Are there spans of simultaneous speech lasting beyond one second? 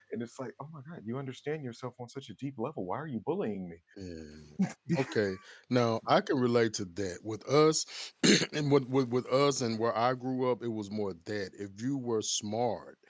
No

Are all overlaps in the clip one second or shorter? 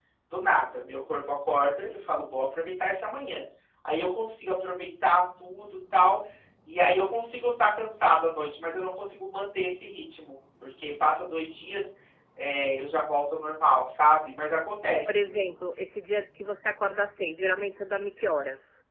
Yes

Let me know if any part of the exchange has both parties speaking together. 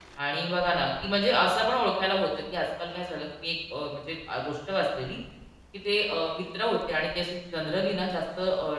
No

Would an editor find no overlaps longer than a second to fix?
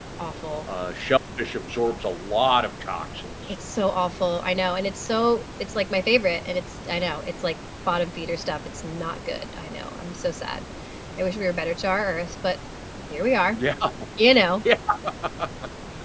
Yes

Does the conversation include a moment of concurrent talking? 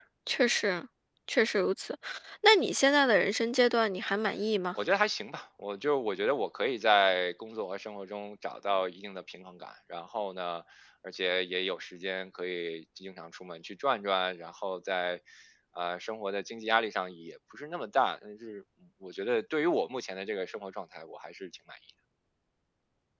No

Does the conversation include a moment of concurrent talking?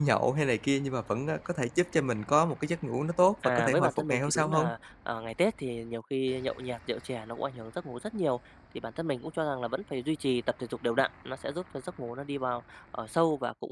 Yes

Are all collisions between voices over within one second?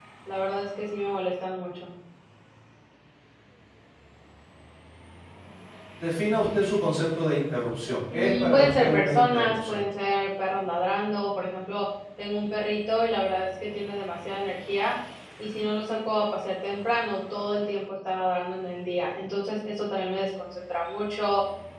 No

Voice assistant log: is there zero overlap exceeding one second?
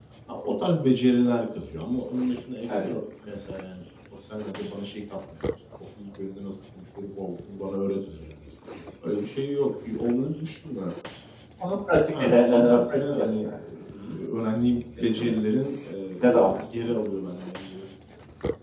No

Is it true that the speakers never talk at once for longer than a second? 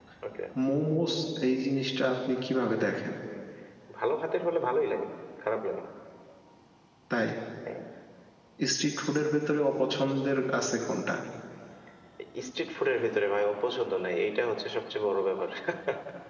Yes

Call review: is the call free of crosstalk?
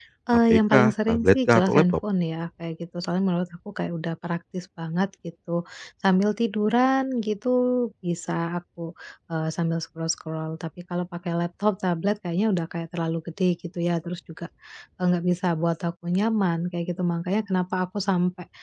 No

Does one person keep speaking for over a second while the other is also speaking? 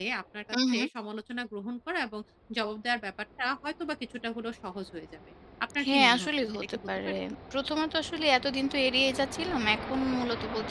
Yes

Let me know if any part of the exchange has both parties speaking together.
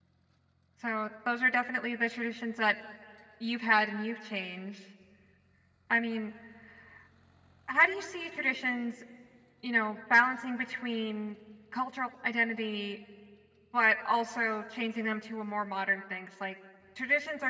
No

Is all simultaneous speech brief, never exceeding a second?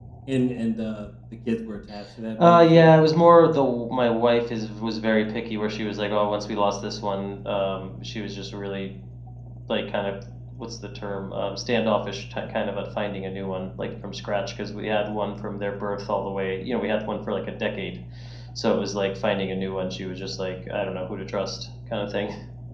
Yes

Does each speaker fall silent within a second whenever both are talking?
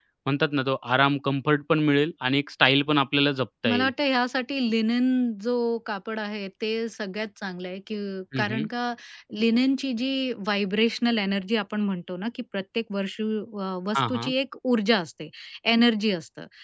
Yes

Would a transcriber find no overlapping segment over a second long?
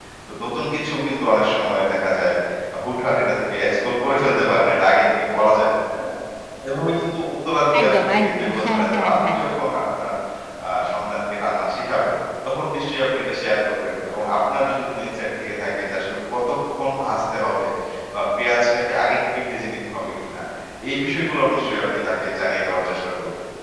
No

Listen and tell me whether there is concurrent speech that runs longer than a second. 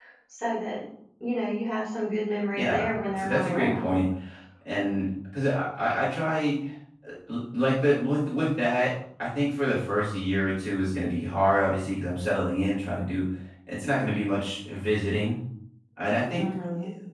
Yes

